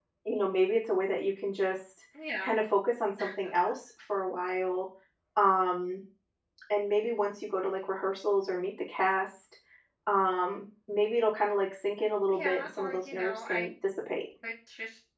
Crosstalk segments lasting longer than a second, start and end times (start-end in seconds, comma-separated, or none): 12.3-13.7